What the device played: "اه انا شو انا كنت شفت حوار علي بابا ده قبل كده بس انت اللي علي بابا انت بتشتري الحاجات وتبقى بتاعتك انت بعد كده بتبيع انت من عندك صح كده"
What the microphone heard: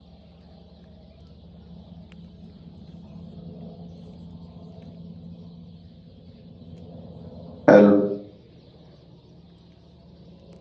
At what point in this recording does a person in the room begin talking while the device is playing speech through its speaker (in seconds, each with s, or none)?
7.7 s